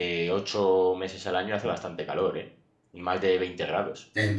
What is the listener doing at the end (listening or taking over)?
listening